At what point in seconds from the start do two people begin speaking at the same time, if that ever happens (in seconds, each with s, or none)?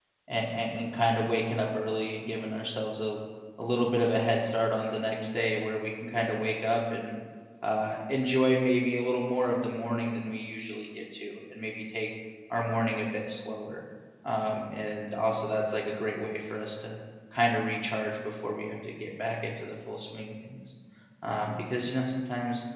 none